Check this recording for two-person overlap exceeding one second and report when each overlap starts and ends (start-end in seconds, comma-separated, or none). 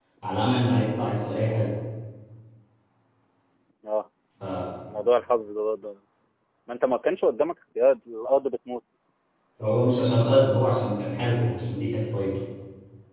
none